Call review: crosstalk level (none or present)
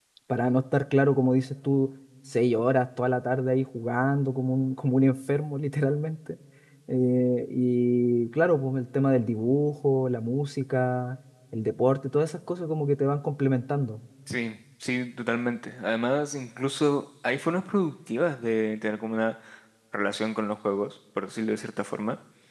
none